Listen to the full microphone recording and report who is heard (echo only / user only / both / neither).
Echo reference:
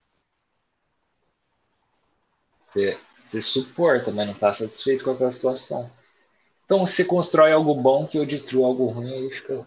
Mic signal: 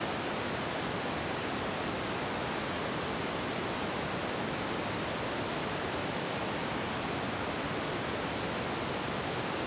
neither